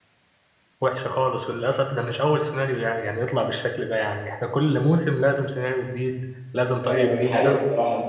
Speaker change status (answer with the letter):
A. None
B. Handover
B